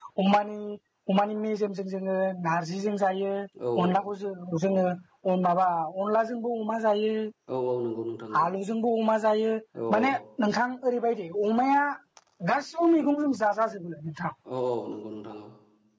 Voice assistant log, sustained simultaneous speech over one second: none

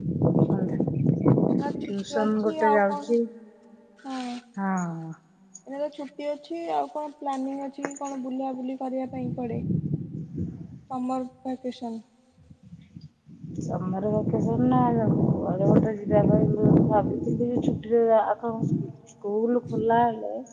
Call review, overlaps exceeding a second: present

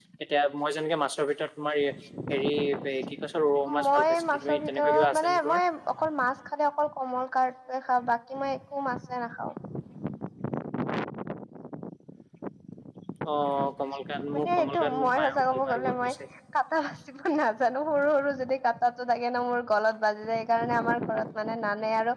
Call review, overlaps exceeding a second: present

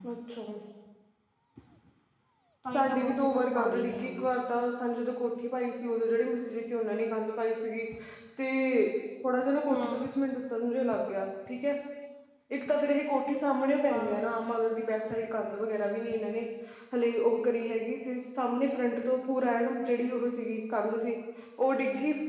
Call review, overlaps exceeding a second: present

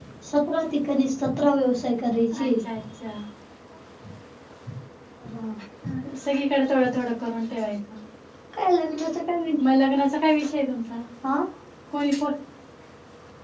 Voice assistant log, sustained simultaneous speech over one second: none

